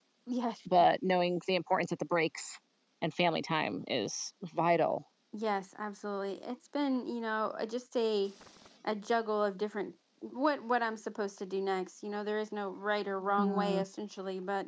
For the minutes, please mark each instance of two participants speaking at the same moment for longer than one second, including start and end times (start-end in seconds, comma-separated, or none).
none